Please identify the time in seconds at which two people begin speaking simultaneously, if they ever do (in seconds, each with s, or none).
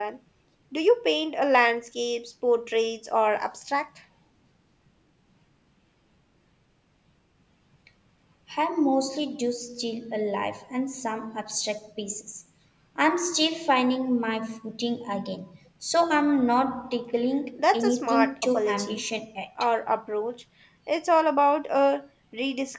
17.6 s